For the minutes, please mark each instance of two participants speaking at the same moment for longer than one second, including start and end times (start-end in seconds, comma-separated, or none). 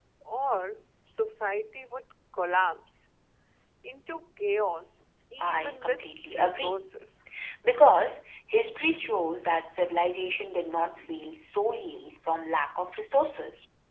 5.4-6.8